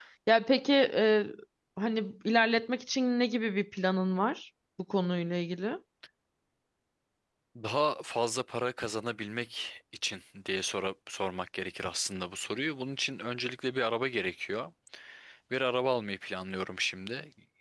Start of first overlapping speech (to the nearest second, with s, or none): none